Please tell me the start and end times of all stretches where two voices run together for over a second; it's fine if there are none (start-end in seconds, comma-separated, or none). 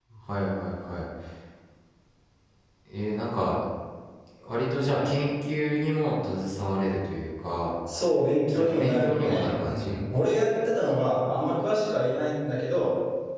8.5-10.0